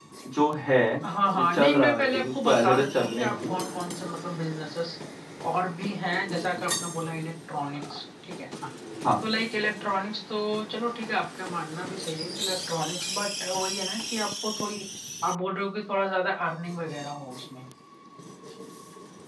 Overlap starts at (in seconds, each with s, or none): 1.3 s